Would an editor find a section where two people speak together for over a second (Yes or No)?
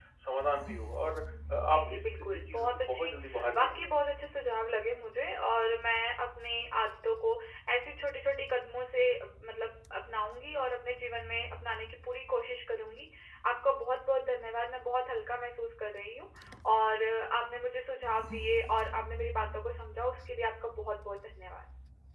Yes